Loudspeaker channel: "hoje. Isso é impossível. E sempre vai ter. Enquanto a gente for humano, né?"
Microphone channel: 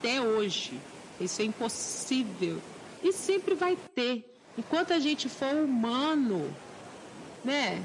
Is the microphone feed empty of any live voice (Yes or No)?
Yes